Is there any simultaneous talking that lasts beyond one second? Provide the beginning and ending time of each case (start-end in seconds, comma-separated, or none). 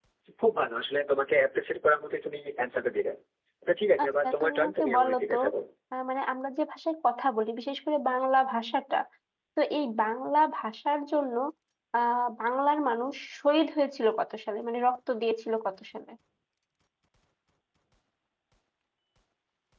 4.0-5.4